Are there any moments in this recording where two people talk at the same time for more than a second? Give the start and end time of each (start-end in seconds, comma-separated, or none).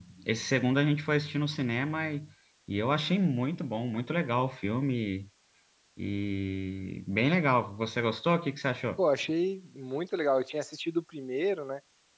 none